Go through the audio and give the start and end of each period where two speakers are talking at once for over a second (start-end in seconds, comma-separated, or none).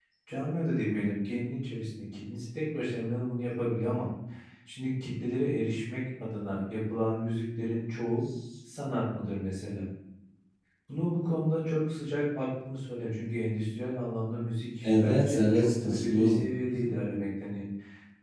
14.8-16.4